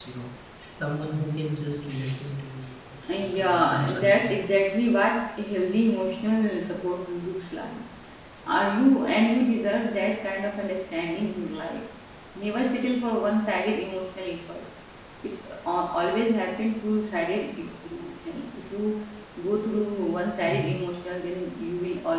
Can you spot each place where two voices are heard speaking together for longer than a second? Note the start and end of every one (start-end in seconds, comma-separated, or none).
3.1-4.3